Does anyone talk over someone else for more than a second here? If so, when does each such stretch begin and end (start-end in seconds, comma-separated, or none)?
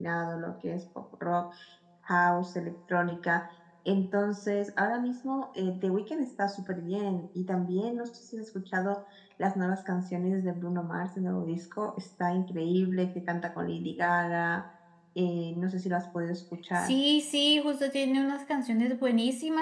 none